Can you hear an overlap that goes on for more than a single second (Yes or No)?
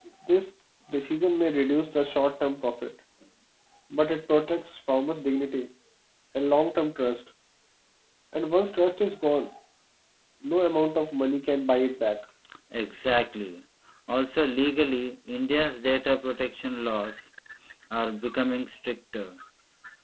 No